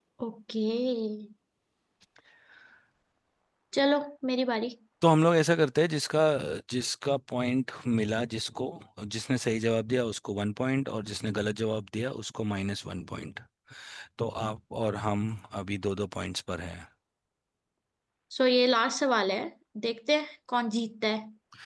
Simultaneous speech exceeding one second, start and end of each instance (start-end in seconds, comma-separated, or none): none